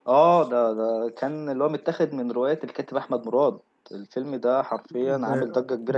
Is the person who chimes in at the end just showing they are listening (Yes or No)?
No